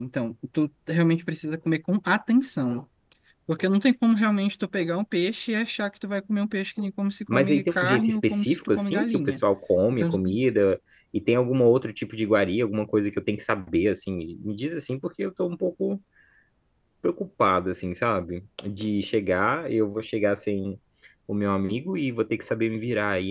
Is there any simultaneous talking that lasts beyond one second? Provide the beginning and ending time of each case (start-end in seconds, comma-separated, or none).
7.3-9.4